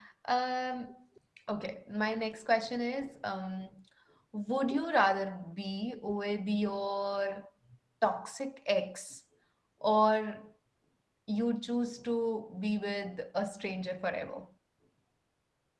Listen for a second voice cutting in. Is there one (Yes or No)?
No